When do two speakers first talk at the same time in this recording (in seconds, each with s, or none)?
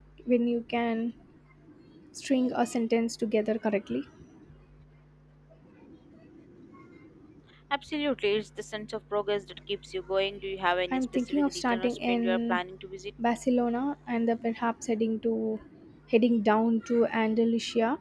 10.9 s